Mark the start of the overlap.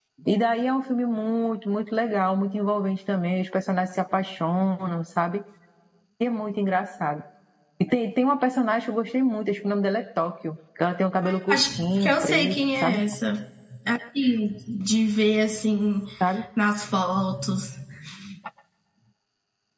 11.2 s

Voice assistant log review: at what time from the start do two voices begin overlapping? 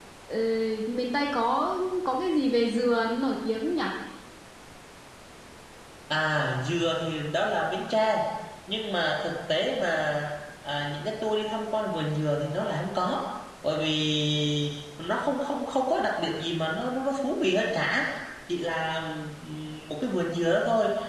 none

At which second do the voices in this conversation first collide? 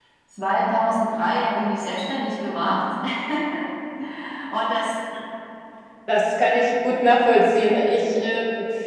none

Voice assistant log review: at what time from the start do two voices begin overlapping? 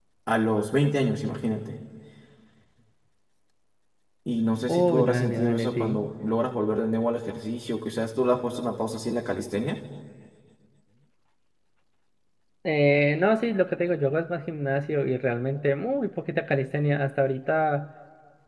4.7 s

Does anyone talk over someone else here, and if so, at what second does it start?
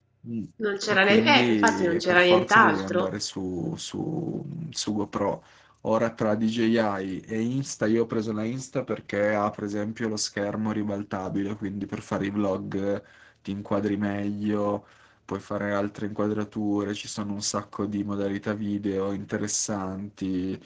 0.9 s

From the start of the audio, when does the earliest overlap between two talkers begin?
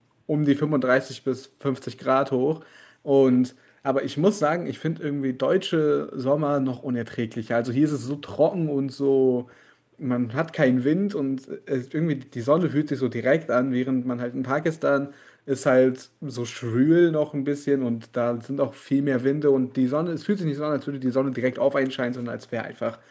none

